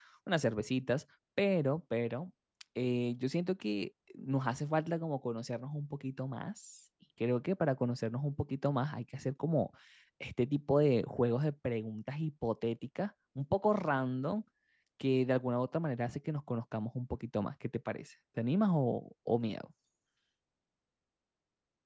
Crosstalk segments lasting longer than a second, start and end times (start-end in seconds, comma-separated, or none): none